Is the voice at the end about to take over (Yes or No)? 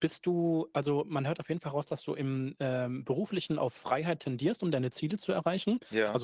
No